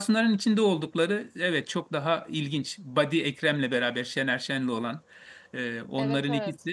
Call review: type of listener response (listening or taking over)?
listening